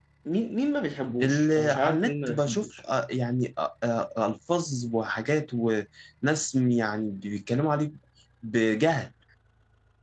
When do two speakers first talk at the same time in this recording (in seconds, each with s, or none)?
1.2 s